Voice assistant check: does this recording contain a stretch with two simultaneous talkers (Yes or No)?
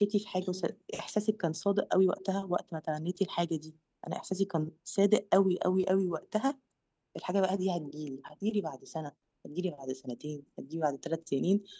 No